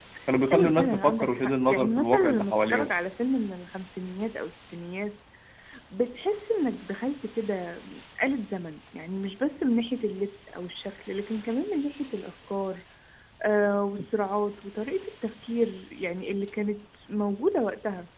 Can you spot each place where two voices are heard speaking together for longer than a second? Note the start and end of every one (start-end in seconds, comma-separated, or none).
0.5-2.9